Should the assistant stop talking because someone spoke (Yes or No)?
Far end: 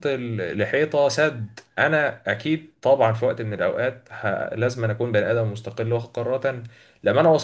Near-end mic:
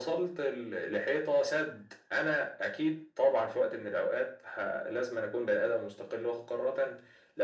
No